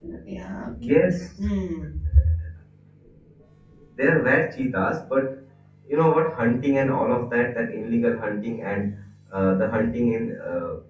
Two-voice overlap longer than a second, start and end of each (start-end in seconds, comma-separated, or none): none